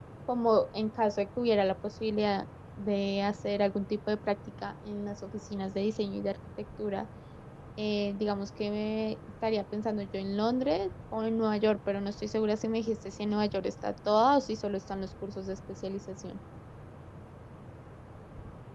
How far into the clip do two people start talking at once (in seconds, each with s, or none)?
none